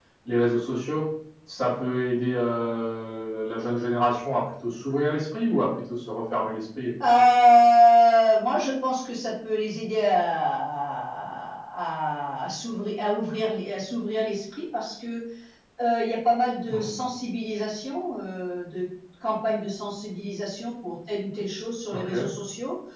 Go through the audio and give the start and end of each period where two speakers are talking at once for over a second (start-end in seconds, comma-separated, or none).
none